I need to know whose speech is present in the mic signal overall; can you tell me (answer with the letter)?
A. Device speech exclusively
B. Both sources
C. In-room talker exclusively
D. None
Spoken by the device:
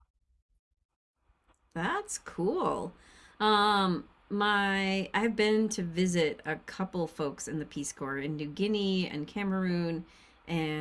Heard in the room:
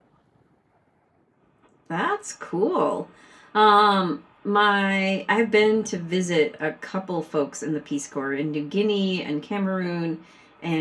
A